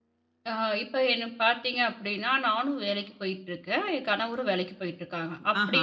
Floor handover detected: No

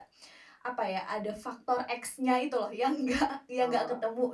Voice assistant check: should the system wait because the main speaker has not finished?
Yes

